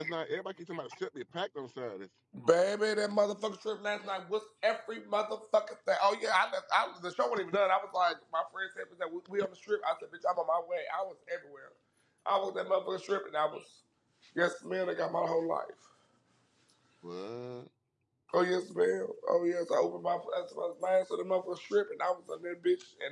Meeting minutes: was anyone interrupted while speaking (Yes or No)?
No